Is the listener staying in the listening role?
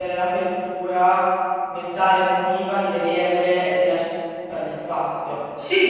No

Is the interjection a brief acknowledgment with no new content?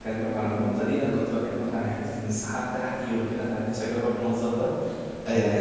Yes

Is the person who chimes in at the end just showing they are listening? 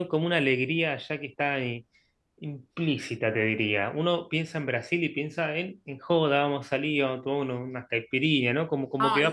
No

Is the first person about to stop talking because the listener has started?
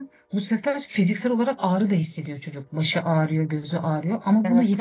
No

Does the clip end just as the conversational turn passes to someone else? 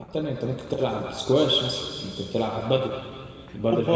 Yes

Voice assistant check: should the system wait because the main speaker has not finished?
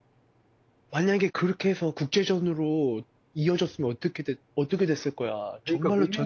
No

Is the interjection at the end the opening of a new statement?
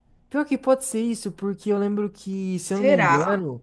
No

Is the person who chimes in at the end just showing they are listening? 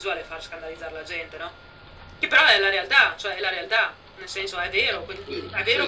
Yes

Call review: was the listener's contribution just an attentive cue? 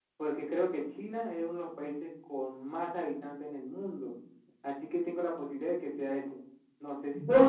No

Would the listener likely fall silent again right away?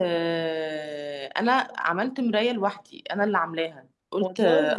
Yes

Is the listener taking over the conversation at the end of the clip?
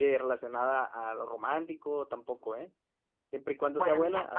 Yes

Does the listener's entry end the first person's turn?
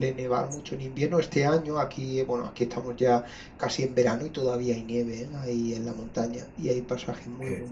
No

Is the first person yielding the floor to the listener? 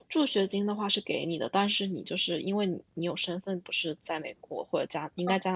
No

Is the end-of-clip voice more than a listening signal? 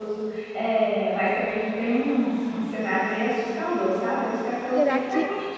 No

